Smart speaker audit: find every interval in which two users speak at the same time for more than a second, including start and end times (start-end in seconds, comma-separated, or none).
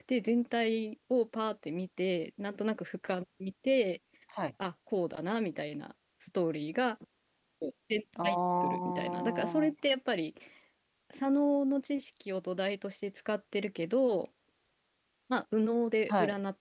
8.2-9.7